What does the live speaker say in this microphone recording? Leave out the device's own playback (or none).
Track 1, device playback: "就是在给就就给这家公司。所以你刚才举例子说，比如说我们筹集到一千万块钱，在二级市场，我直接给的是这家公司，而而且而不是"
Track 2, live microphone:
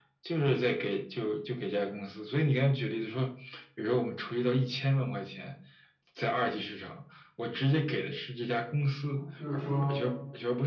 啊，就是说